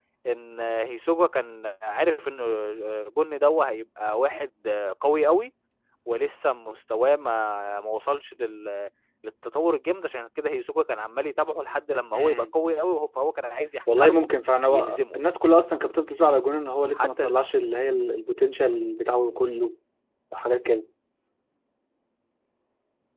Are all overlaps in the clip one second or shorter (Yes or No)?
Yes